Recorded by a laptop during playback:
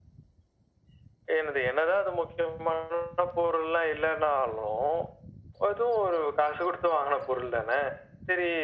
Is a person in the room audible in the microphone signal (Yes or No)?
No